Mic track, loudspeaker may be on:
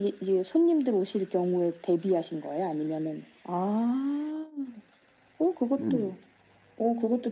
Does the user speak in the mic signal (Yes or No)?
Yes